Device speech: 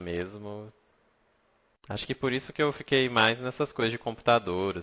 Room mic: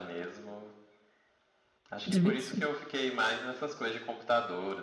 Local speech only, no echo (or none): Tive que.